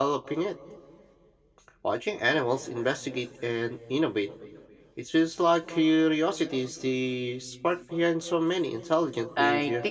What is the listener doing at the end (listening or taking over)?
taking over